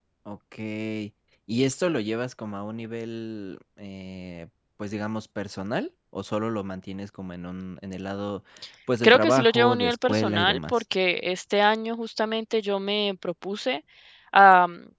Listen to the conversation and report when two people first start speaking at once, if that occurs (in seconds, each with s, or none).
9.0 s